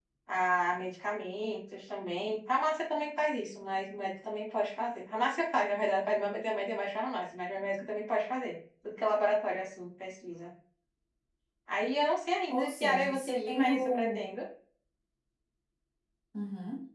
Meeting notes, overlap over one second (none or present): present